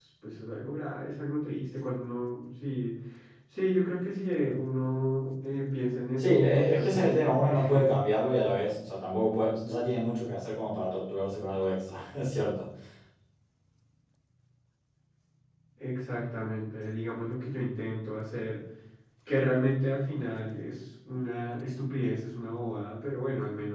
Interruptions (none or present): present